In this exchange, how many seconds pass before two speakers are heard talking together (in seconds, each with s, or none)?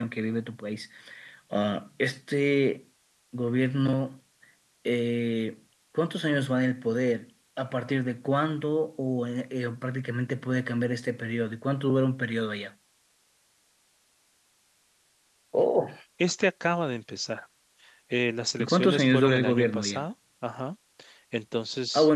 18.6 s